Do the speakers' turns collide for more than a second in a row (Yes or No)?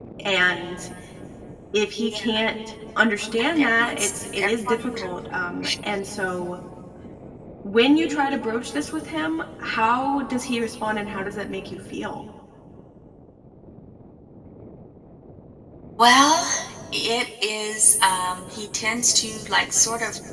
Yes